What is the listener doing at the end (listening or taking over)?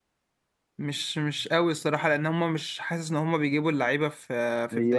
taking over